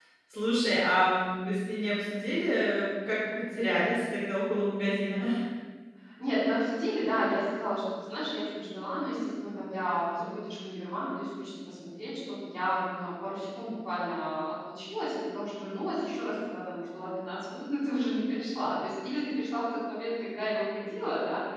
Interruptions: none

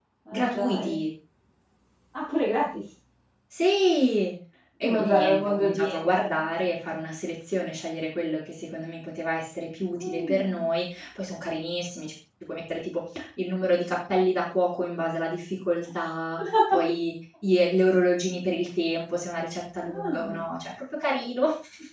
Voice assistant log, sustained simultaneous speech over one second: present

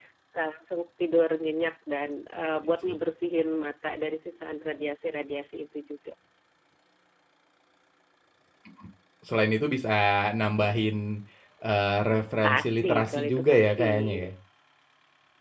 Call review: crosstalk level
present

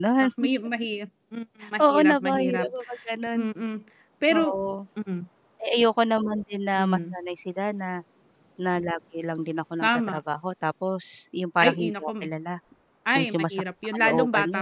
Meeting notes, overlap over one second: present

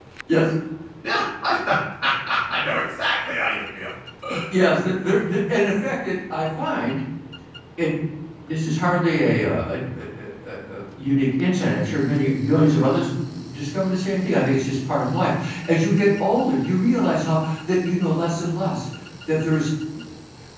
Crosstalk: none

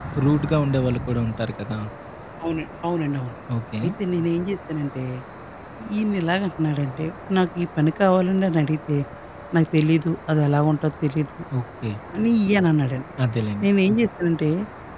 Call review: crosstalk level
none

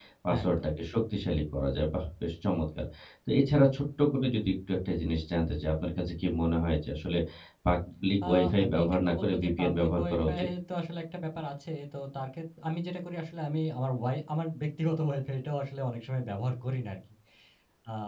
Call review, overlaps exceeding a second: present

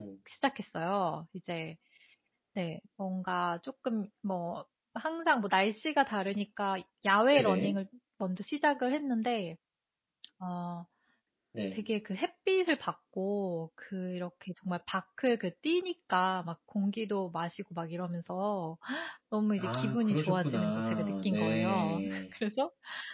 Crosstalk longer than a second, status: present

